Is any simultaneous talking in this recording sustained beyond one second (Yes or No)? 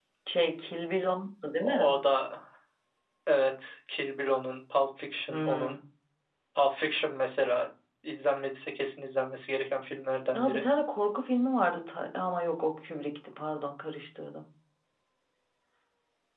No